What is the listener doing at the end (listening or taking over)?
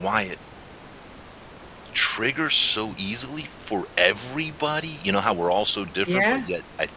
listening